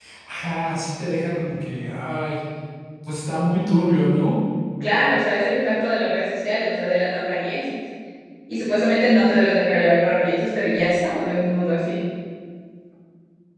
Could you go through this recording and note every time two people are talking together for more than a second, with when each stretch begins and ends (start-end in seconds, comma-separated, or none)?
none